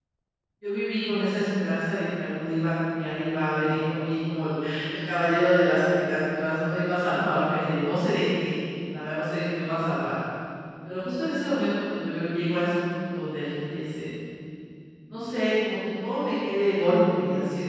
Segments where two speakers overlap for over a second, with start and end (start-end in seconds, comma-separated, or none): none